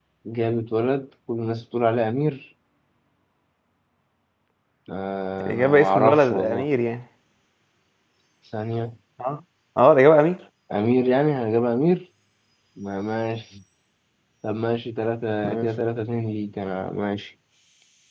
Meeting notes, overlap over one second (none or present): present